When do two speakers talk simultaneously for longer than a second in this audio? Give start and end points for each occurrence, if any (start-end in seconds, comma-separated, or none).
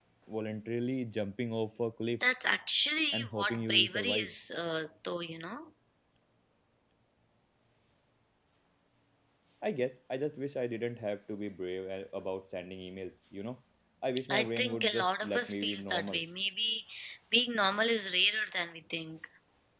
3.1-4.3, 14.3-16.2